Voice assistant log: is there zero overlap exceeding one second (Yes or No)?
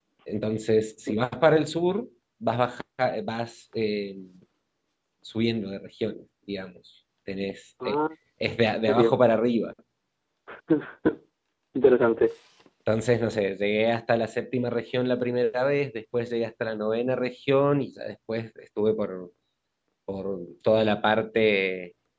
Yes